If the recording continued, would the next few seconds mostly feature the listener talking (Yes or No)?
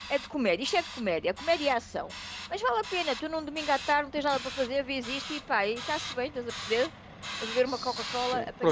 Yes